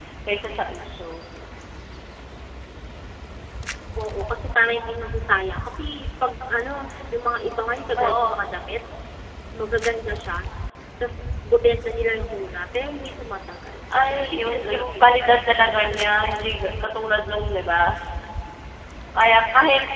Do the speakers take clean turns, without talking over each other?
No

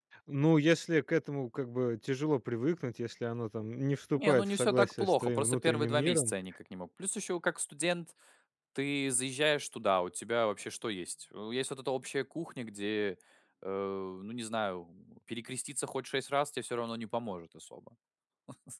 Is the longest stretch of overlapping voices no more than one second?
No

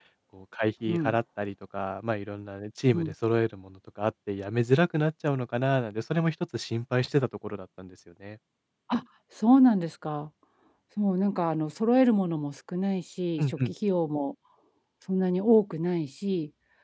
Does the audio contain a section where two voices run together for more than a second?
No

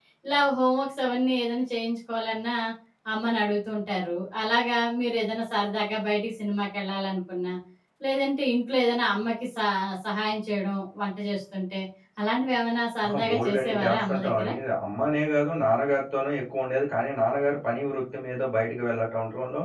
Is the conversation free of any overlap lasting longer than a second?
No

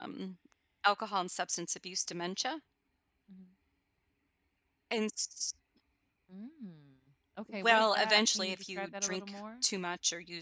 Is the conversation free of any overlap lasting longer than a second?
No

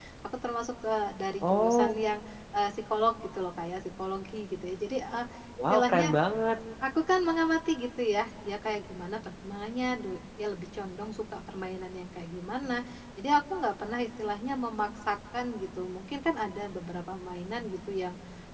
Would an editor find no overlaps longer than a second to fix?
Yes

